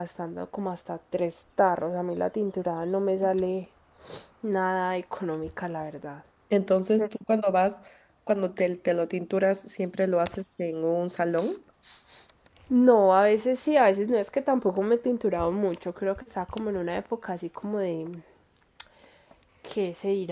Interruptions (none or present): none